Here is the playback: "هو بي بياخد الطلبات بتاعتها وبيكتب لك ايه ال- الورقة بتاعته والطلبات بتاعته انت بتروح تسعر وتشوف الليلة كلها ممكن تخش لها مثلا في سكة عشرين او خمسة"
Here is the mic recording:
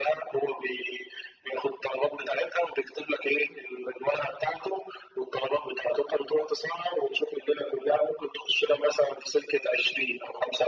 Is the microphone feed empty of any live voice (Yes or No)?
Yes